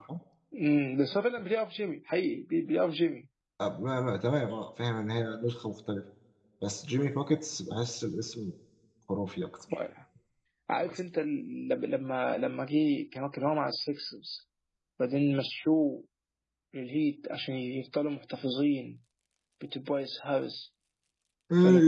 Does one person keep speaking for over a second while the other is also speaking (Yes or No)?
No